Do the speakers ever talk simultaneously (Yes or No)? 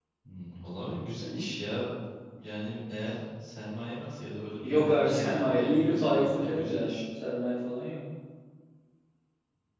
Yes